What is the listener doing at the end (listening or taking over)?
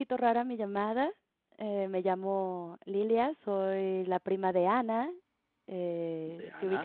listening